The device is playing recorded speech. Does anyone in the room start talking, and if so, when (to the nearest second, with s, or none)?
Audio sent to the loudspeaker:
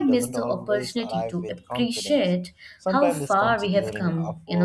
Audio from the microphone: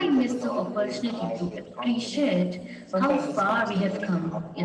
none